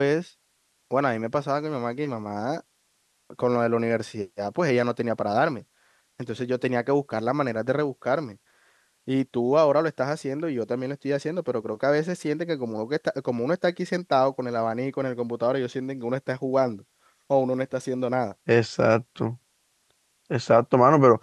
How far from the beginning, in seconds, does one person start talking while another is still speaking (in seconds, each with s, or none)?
none